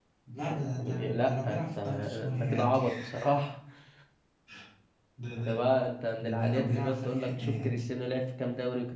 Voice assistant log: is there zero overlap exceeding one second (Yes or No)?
No